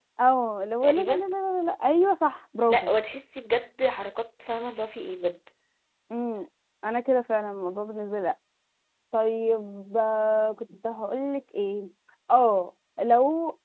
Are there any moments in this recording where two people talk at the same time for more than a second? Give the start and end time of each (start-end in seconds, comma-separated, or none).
none